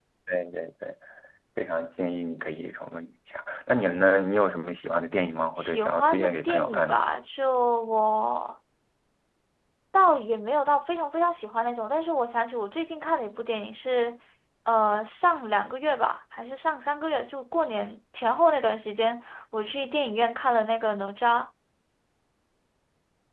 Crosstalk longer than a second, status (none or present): present